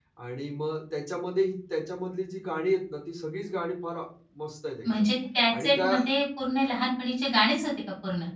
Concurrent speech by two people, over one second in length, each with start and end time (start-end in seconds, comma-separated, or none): none